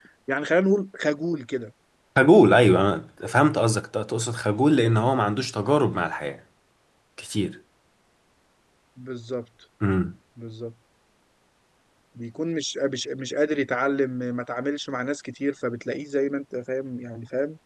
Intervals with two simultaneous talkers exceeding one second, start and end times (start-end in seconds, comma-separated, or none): none